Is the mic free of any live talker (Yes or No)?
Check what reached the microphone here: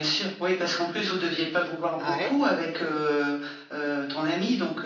No